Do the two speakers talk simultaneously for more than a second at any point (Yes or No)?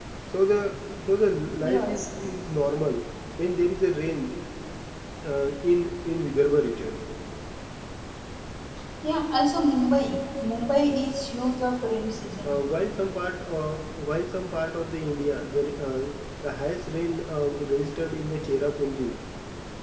No